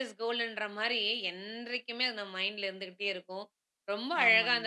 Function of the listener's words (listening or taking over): listening